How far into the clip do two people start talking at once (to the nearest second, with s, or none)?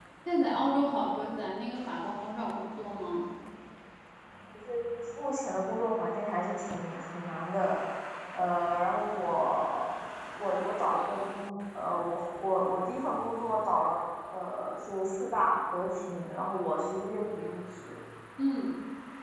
none